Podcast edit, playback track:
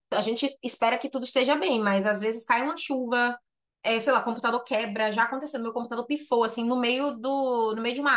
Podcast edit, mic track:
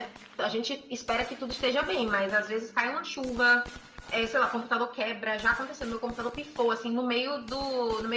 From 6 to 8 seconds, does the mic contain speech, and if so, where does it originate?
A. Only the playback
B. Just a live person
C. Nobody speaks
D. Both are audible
A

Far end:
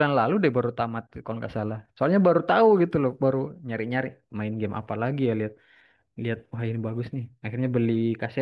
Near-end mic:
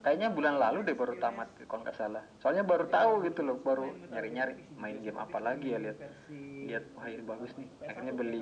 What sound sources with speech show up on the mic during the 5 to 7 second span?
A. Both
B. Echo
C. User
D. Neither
A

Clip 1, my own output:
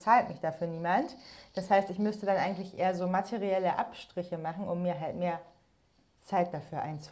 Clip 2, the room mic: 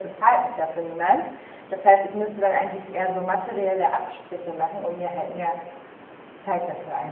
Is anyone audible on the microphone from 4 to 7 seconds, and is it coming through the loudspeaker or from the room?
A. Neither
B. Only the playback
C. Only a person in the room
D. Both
B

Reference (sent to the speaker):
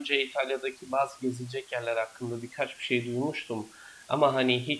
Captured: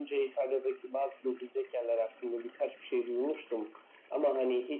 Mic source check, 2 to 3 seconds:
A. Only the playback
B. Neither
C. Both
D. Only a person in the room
A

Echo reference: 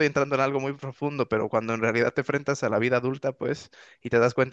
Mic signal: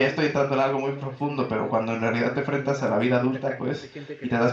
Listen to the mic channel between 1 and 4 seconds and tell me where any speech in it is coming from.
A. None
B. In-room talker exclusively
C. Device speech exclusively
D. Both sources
D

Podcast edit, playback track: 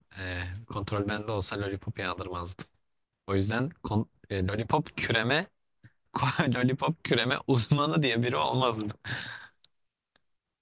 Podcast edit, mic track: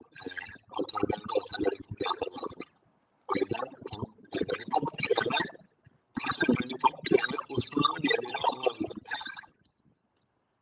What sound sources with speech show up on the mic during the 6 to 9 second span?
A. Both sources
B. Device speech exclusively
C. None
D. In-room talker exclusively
B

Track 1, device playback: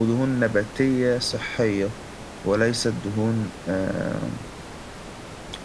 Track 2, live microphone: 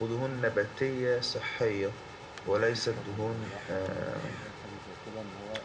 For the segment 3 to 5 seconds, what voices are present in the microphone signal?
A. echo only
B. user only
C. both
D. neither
C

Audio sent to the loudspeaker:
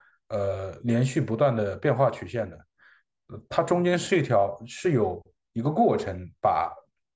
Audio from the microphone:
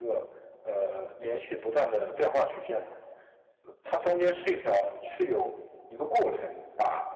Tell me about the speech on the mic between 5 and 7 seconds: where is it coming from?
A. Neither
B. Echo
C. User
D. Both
B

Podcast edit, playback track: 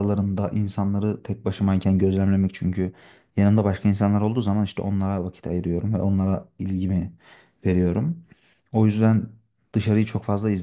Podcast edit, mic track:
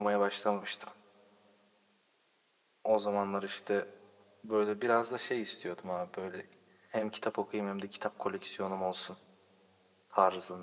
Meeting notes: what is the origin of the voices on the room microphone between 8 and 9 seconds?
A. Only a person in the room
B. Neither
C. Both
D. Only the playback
A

